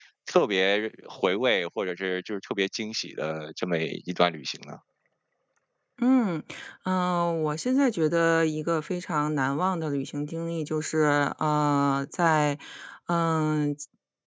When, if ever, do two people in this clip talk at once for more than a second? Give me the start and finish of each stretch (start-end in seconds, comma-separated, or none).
none